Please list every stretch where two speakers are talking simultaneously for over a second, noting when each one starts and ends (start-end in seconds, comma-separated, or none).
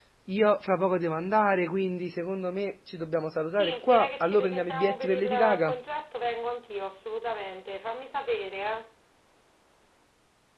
3.5-5.8